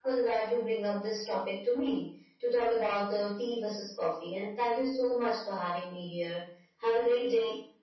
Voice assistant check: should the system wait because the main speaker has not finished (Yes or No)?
No